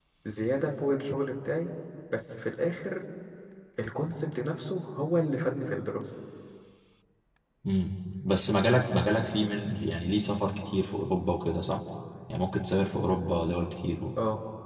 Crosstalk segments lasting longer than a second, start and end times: none

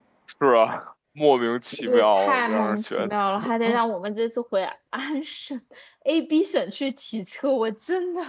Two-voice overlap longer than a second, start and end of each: 1.9-3.1

